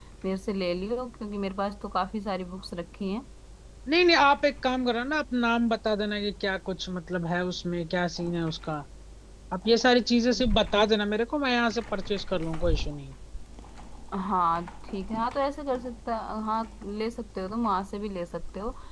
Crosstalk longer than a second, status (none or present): none